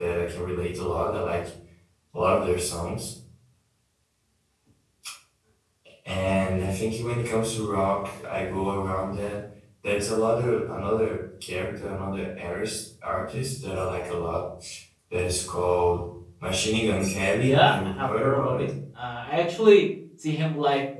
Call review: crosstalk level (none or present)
present